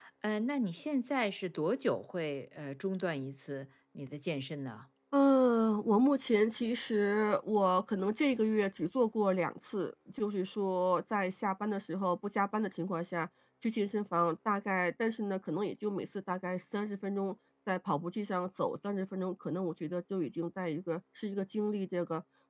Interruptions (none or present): none